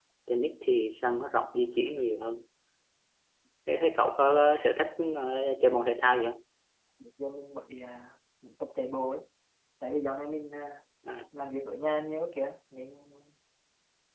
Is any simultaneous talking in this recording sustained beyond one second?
No

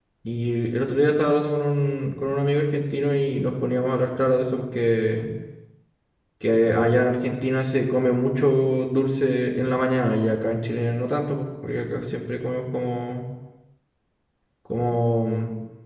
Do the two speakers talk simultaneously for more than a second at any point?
No

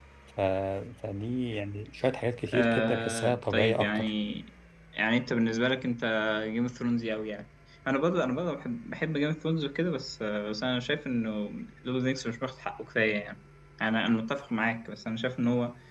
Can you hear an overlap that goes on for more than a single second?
Yes, from 2.5 s

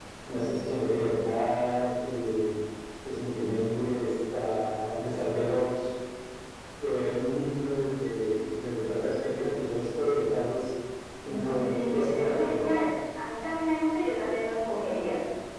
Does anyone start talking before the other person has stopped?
Yes, from 11.3 s

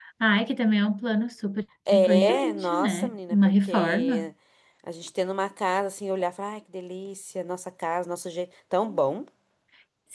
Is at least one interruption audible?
Yes, from 1.9 s

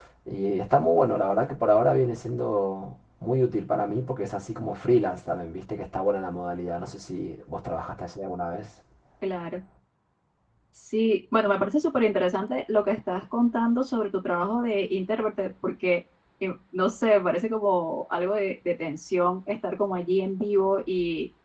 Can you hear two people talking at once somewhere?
No

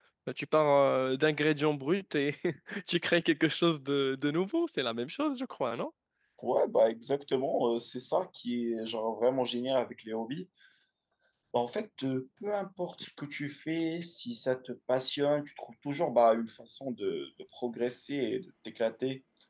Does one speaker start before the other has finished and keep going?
No

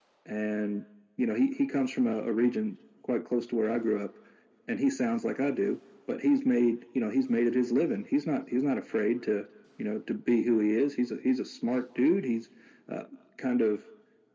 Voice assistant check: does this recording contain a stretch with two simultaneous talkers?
No

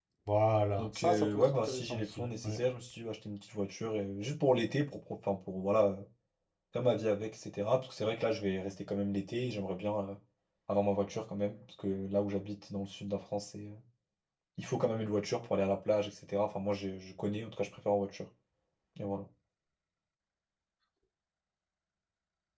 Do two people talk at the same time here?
Yes, from 0.8 s

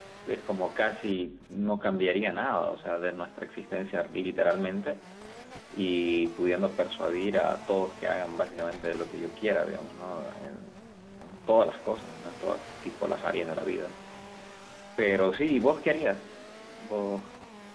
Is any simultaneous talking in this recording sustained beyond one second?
No

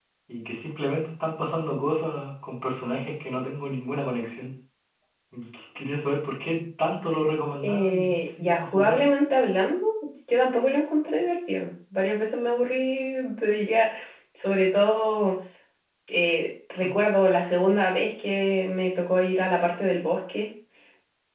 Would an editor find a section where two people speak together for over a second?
Yes, from 7.6 s

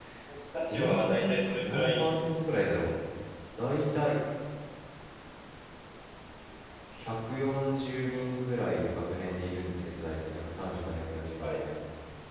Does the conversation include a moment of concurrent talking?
Yes, from 0.7 s

